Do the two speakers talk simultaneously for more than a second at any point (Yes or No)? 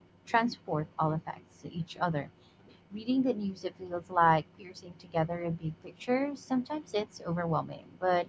No